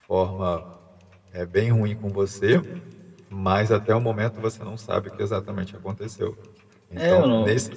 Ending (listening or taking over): taking over